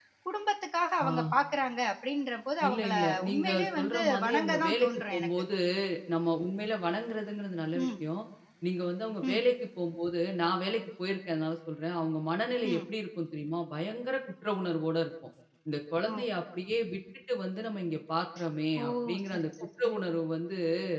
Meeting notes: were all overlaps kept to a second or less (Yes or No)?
No